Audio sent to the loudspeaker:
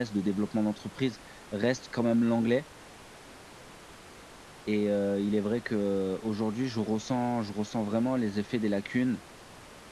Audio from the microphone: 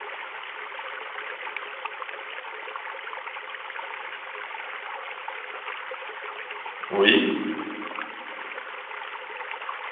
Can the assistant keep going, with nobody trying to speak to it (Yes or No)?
No